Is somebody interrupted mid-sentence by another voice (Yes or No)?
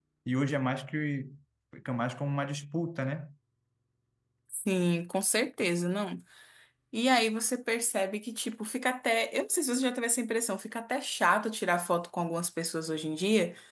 No